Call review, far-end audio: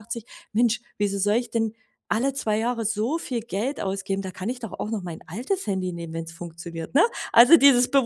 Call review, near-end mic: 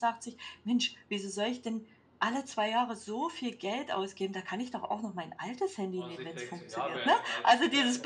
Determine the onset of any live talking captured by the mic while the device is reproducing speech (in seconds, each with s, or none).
5.9 s